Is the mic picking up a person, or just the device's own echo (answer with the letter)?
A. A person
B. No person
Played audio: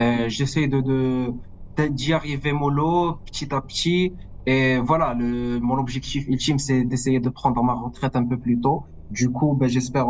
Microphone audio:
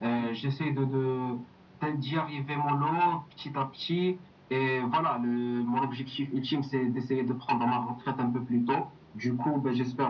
B